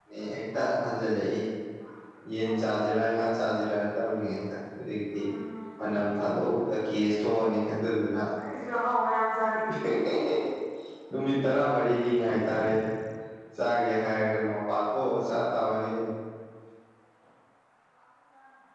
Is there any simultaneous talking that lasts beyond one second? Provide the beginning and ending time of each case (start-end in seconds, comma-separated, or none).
none